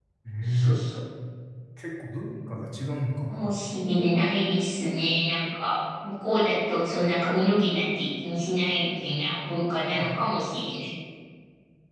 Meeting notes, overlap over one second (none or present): none